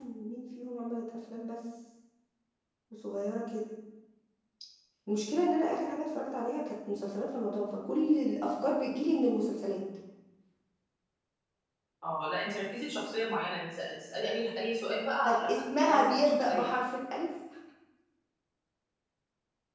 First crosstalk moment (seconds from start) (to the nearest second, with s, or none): 15 s